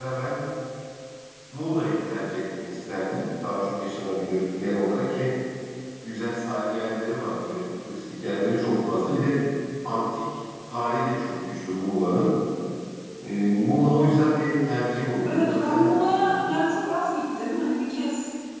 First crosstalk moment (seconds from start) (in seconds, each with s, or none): 15.2 s